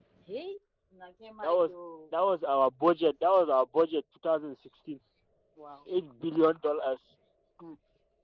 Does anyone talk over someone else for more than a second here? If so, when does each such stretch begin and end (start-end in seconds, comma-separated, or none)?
none